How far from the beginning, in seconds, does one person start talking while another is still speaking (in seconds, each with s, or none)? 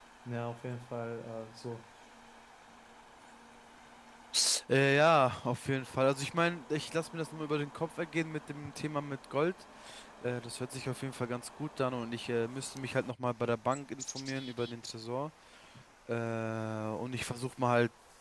none